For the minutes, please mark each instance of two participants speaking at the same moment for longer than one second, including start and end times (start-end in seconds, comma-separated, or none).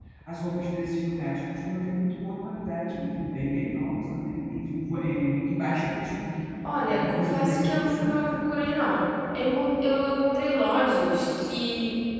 6.9-8.1